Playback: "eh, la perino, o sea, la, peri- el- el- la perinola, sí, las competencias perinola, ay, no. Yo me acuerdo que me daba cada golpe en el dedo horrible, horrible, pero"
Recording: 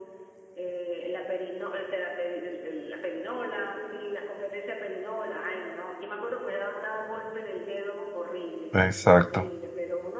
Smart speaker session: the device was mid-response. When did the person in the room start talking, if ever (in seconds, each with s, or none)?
8.7 s